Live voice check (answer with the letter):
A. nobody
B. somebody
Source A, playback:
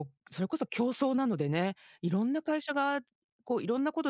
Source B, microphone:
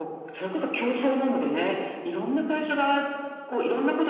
A